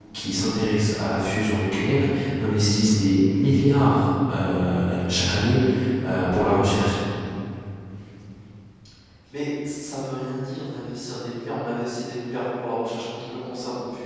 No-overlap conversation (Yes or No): Yes